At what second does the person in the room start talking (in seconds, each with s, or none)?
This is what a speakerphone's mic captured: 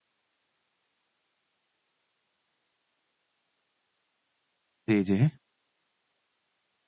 4.9 s